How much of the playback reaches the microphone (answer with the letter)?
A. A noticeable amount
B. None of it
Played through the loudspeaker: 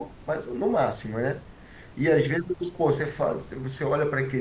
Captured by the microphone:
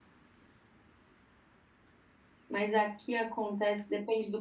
B